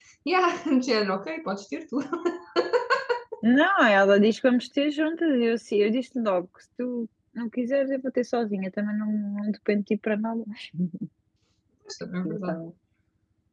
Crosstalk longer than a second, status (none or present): none